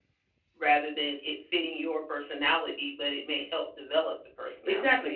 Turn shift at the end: Yes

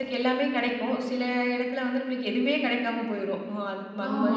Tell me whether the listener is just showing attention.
No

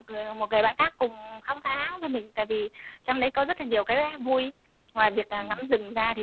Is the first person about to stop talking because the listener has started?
No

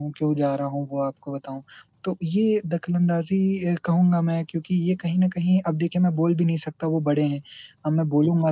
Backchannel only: Yes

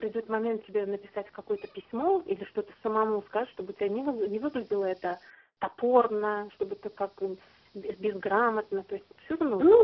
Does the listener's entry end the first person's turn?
Yes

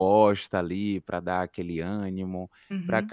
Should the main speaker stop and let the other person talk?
No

